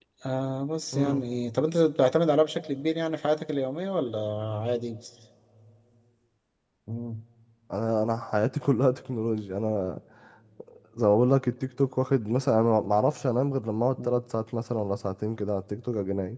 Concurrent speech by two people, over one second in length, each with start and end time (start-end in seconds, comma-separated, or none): none